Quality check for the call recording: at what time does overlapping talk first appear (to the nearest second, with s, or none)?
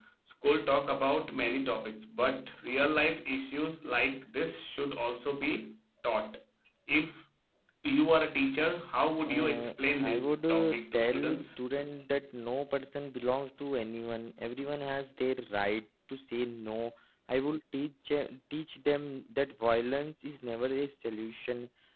9 s